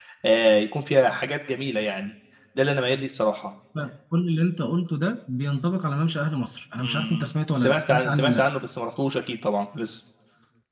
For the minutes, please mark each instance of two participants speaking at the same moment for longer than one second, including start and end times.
6.8-8.5

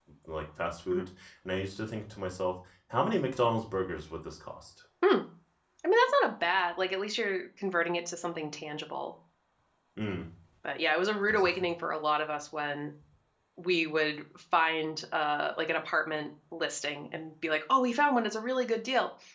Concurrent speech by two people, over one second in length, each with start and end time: none

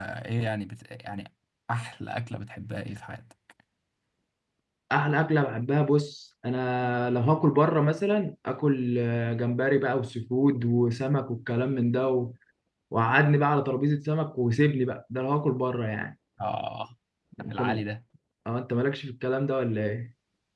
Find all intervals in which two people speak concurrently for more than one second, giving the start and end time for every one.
none

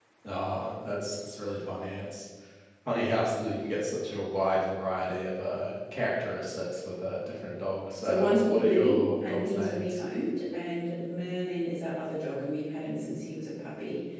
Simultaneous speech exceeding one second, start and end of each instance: 8.0-10.0

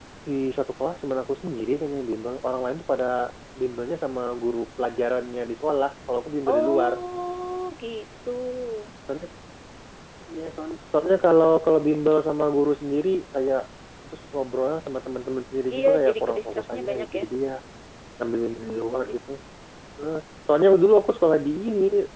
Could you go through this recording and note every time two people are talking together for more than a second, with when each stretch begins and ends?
15.8-17.2

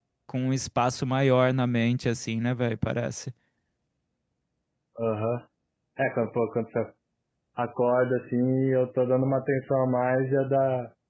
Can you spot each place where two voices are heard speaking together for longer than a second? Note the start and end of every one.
none

